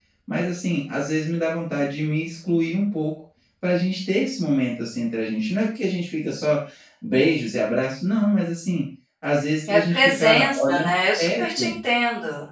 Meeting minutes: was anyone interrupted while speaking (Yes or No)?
Yes